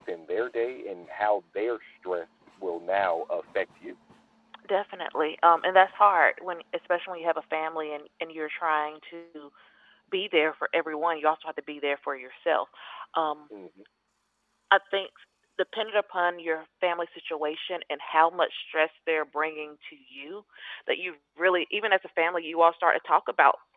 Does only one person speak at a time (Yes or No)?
Yes